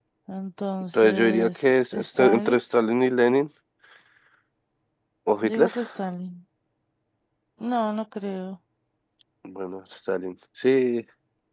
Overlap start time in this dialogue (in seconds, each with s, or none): 0.9 s